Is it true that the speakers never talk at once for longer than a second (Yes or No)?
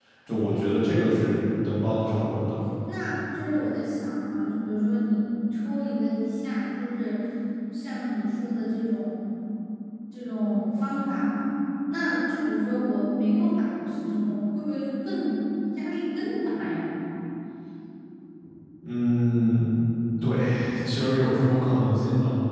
Yes